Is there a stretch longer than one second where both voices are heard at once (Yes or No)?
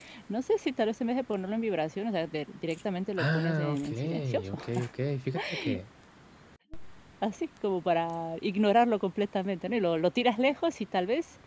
Yes